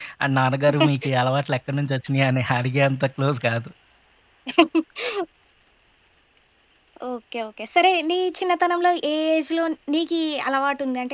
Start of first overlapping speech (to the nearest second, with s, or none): none